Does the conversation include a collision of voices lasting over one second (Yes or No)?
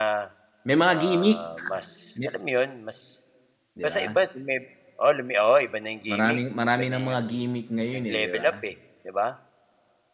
Yes